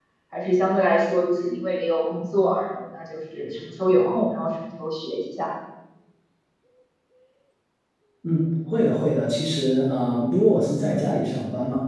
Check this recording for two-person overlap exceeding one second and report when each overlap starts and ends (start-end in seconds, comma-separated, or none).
none